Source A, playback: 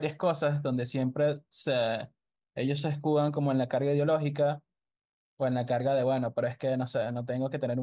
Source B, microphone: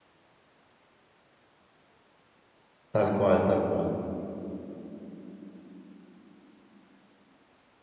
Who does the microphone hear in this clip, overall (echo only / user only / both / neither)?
user only